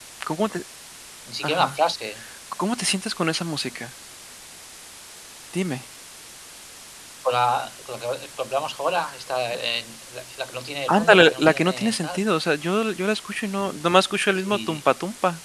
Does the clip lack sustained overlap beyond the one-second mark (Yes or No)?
No